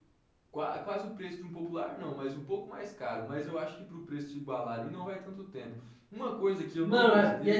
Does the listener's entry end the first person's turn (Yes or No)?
Yes